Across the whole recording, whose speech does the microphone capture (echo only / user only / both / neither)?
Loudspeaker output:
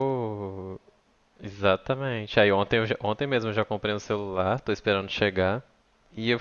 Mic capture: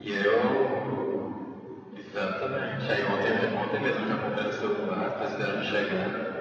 echo only